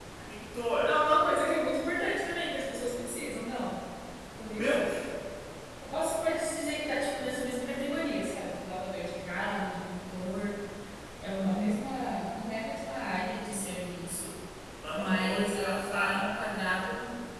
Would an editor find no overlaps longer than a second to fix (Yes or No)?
No